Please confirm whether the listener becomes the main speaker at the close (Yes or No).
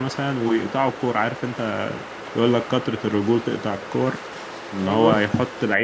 No